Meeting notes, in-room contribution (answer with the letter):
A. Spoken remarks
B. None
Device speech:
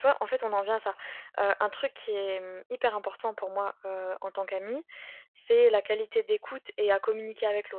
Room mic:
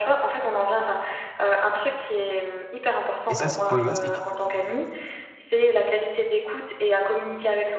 A